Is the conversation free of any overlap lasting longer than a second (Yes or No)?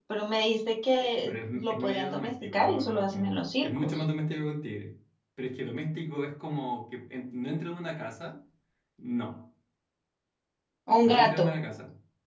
No